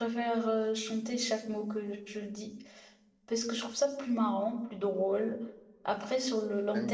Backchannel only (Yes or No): No